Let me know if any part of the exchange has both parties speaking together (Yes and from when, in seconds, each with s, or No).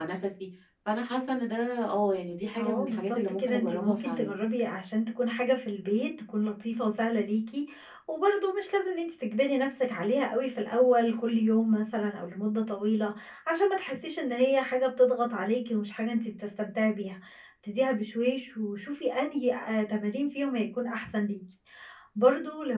Yes, from 2.5 s